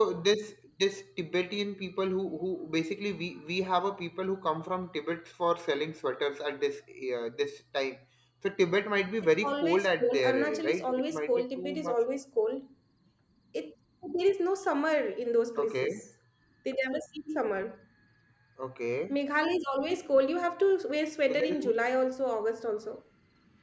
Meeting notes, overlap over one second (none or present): present